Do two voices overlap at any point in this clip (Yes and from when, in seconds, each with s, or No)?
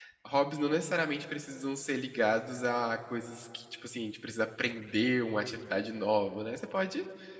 No